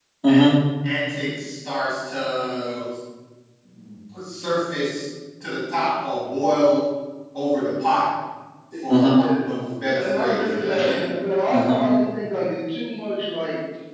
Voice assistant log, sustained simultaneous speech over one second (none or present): present